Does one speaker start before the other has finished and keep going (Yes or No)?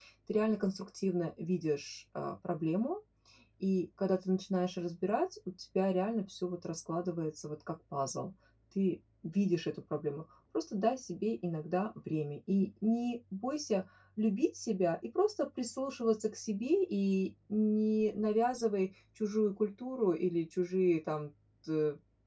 No